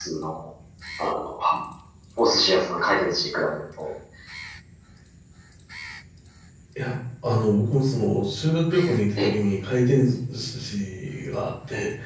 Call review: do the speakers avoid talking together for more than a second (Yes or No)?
Yes